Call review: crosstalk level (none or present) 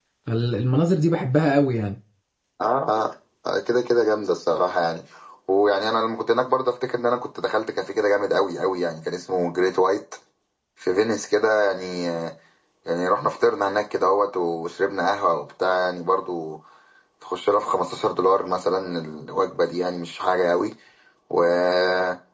none